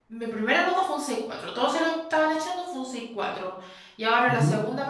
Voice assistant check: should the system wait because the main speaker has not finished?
Yes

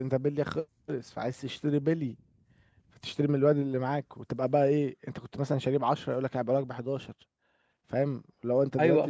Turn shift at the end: Yes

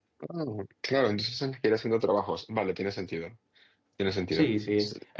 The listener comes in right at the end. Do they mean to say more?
Yes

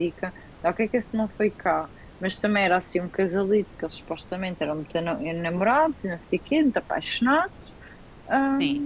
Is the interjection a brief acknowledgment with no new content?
Yes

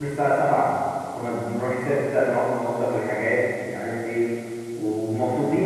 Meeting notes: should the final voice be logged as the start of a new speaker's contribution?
No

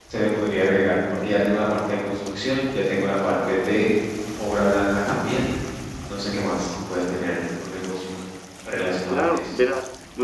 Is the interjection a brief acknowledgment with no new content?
No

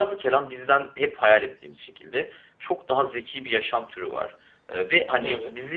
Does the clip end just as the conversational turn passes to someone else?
No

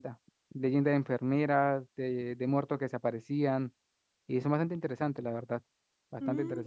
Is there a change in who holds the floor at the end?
Yes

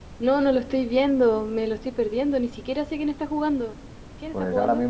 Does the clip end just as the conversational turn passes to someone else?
Yes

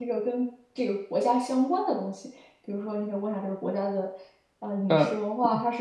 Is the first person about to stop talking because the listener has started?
No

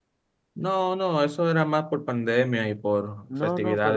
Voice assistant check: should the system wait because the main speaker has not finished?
No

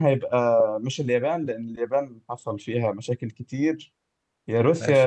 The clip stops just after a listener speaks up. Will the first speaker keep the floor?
Yes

